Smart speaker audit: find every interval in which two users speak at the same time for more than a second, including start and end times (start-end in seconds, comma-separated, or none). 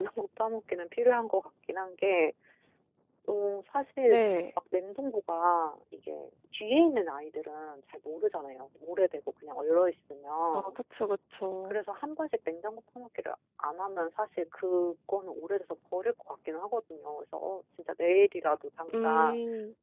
none